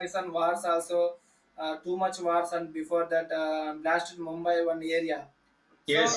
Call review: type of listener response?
taking over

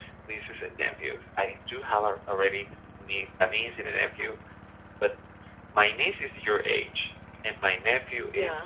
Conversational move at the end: listening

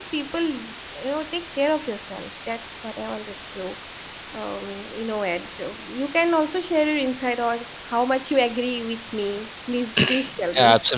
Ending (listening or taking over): taking over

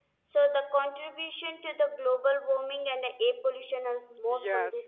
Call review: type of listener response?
taking over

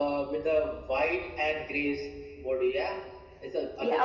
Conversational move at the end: taking over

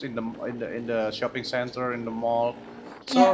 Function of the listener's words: listening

